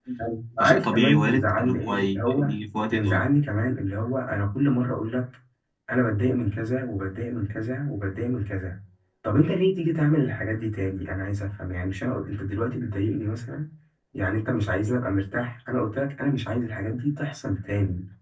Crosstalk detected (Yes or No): Yes